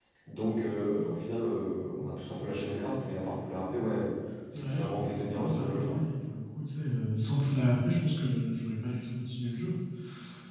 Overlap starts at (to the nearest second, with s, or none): 5 s